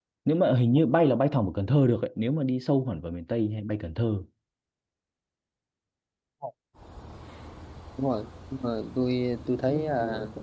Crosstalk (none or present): none